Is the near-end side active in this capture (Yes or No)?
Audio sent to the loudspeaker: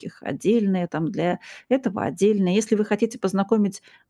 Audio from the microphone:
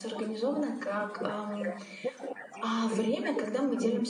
Yes